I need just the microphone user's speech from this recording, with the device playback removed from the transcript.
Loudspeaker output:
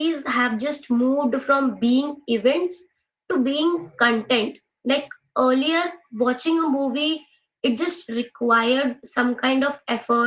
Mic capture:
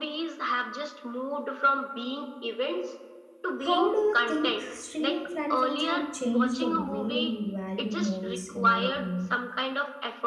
how do you think streaming platforms have changed the way we value movies in your opinion

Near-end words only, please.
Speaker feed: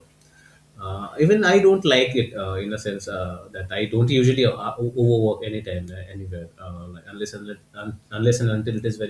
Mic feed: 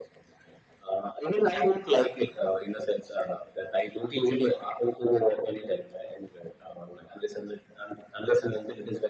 none

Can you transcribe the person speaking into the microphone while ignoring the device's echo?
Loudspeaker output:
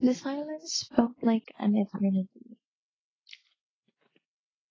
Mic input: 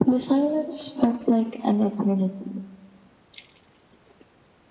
none

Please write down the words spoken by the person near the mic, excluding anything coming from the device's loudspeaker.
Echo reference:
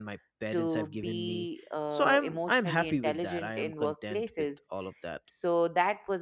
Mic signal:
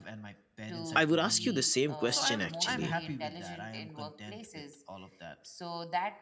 i would ask you the same question actually

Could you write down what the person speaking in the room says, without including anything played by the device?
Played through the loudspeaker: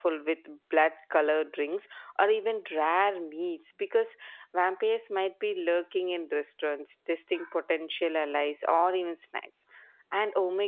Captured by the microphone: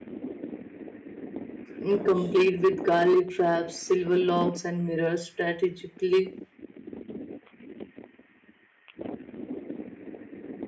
mm, complete with garlic traps, silver locks, and mirrors strategically

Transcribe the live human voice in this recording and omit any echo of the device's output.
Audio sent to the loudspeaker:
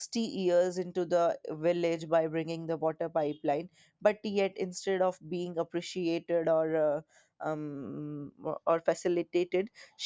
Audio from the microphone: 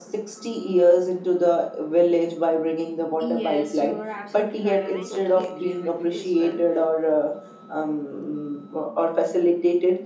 Yes, you're absolutely right, and I totally agree with you as well.

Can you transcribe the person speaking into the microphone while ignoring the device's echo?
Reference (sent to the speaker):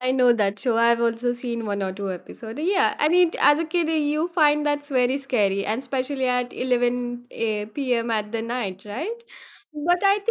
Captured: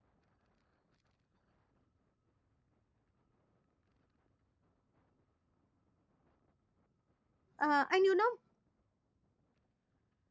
Uh, and you know,

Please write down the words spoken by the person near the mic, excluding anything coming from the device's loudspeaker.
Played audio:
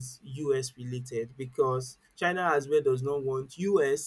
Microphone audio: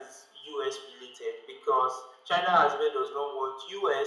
none

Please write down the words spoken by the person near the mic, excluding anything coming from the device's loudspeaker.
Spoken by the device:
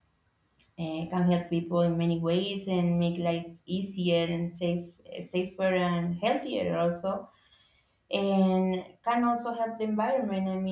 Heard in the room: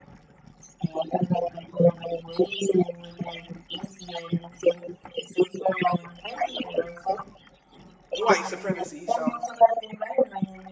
white supremacy. So

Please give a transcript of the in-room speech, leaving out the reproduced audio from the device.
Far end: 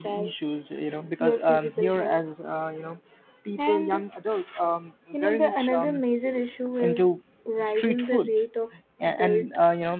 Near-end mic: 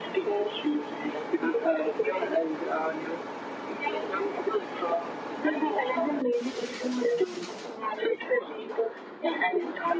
none

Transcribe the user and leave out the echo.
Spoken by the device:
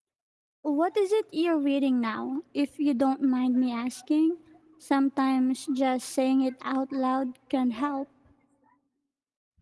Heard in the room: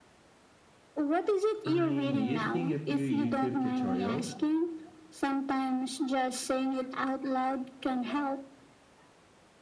I'm using a few YouTube tutorials.

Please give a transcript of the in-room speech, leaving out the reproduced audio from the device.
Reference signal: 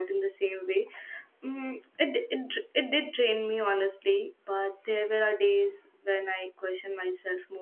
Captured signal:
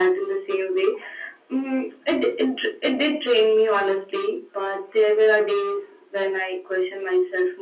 none

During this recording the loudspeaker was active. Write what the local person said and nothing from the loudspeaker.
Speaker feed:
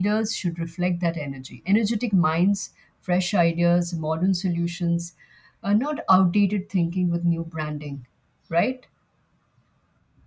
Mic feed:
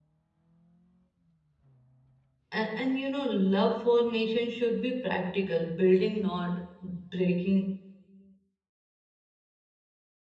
and, and you know, love for nation should be practical, building, not breaking.

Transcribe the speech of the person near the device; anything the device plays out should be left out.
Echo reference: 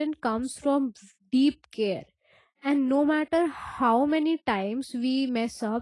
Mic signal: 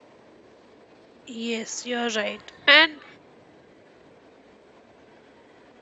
Yes, you're right. And

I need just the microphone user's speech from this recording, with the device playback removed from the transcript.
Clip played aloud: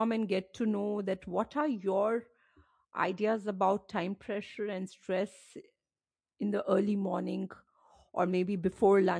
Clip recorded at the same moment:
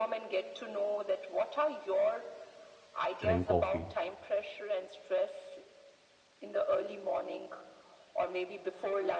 drink coffee.

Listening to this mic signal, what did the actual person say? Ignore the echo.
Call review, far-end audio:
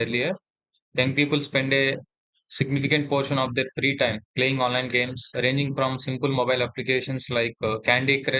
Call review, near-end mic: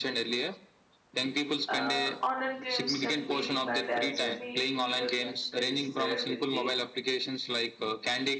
Uh, online games can be defined as any video game that is played with the

